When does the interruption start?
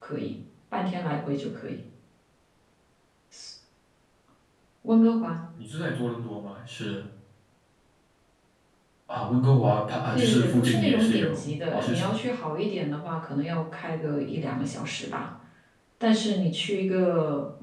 10.1 s

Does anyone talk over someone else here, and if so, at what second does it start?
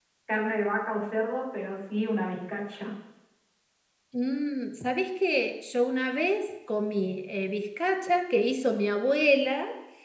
none

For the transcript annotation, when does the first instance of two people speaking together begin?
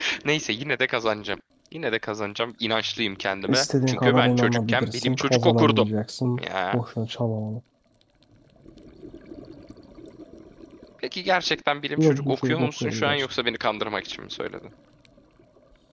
3.5 s

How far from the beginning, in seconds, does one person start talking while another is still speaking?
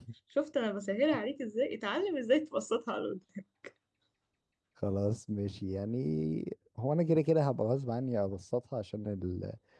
none

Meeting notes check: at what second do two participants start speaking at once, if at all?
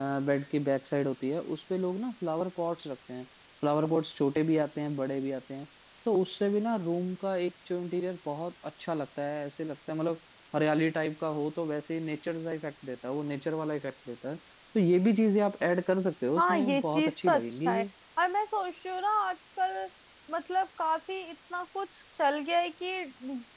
16.4 s

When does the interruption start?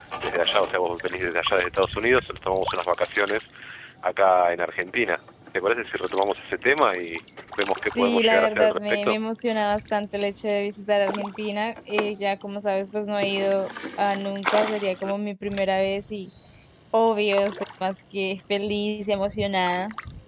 7.8 s

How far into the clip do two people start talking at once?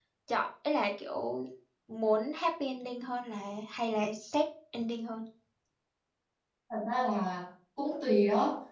none

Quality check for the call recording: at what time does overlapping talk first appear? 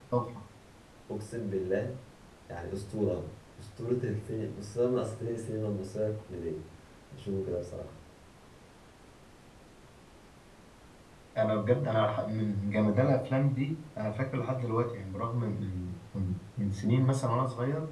none

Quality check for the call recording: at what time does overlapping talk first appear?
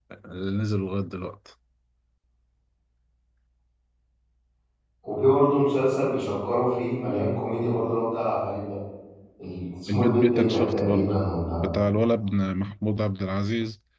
9.9 s

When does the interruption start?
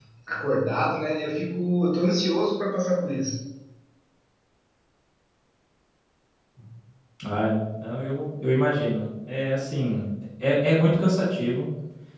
none

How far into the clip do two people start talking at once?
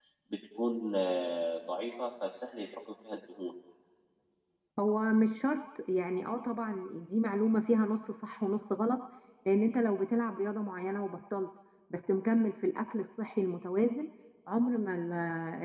none

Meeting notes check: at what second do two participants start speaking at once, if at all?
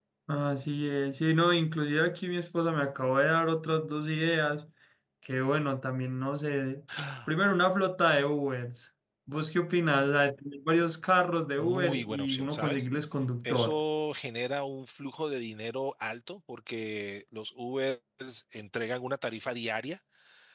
11.6 s

